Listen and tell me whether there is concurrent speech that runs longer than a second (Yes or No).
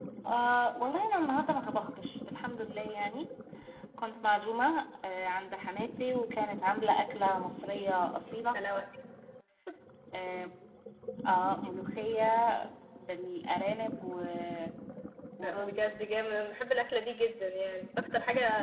No